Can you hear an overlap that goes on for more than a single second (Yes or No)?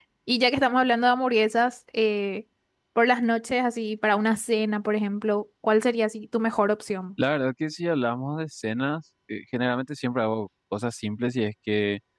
No